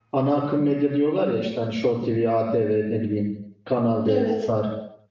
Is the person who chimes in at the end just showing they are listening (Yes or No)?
Yes